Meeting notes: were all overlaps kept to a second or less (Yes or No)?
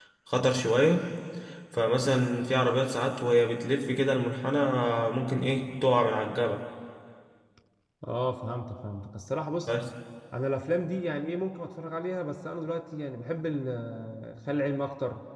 Yes